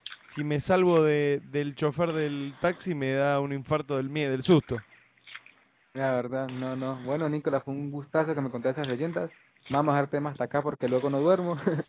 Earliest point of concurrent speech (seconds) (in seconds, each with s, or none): none